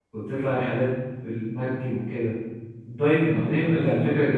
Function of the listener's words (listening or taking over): taking over